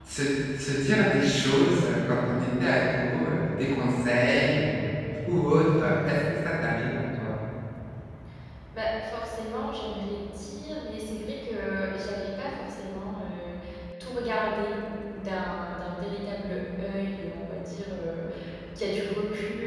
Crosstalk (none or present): none